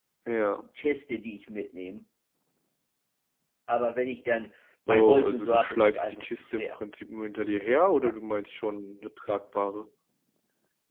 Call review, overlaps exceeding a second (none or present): present